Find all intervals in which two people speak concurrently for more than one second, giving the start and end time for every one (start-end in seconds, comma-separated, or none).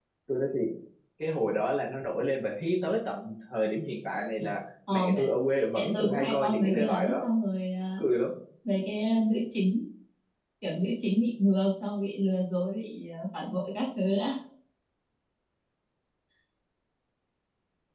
5.7-7.3